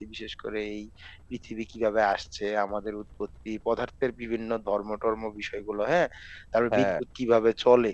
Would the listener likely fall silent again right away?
Yes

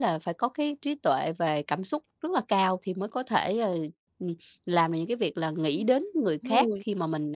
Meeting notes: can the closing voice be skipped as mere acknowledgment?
Yes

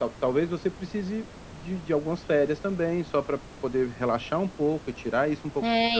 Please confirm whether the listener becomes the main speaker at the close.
Yes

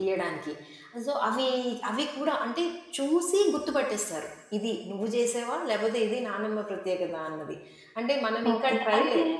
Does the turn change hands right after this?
Yes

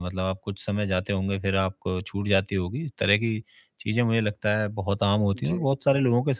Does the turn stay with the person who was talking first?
Yes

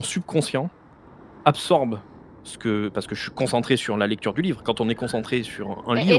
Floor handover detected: Yes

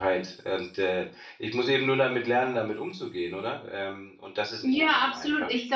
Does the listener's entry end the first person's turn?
Yes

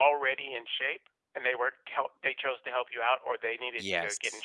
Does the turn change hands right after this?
Yes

